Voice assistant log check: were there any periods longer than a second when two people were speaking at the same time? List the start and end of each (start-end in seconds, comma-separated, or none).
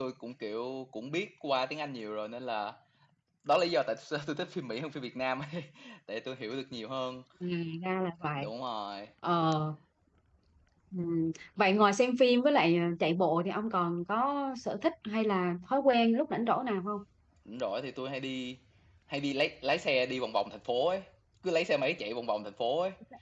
none